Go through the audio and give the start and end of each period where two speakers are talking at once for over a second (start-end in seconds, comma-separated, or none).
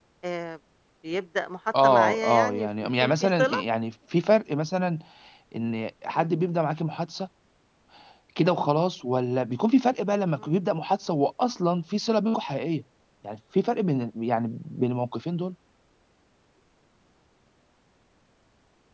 1.8-3.6